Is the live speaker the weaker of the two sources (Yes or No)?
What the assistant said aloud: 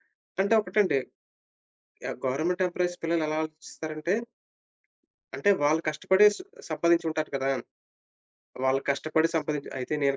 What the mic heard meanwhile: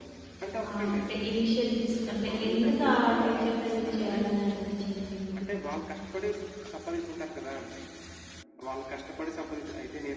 No